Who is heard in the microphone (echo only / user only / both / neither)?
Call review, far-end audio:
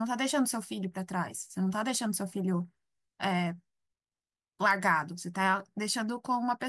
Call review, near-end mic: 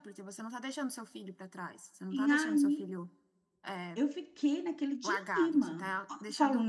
both